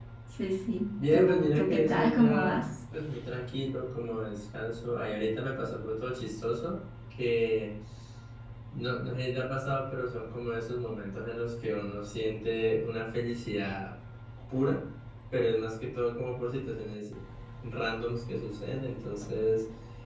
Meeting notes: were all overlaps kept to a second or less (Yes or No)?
No